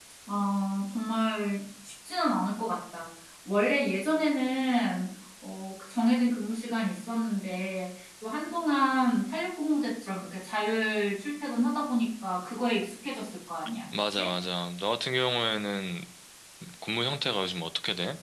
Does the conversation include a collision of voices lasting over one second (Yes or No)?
No